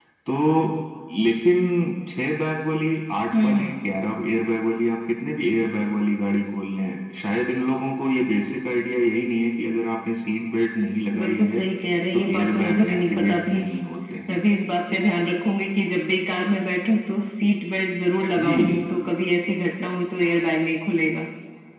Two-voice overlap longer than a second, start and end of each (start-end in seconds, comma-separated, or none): 12.1-13.6